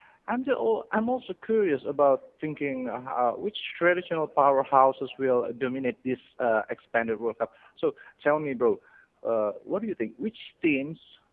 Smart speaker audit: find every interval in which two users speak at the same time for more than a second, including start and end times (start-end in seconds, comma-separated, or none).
none